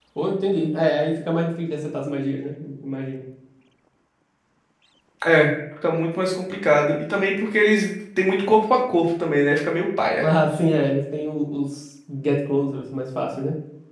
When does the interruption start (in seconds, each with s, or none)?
none